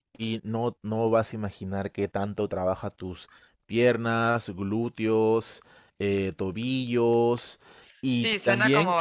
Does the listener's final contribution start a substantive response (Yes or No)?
Yes